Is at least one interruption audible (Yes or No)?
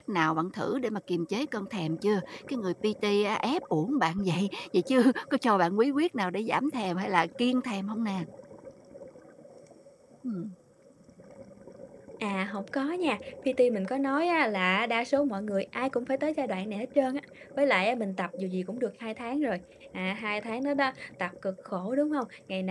No